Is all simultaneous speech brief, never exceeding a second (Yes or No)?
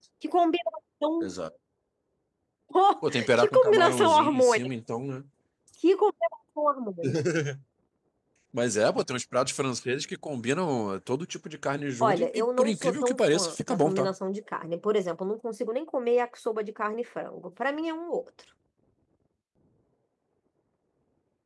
No